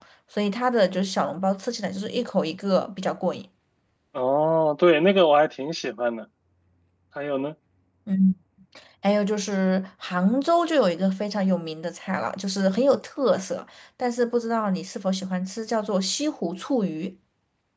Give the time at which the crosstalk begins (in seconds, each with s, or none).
none